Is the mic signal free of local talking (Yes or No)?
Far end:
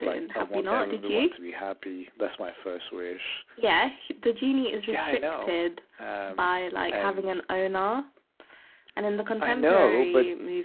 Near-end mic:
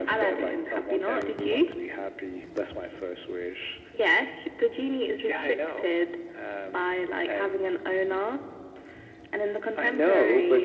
Yes